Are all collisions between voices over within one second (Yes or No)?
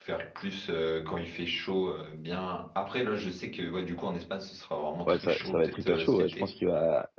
No